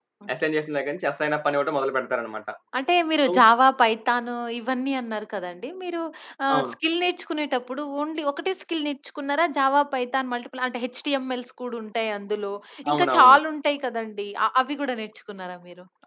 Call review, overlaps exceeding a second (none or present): none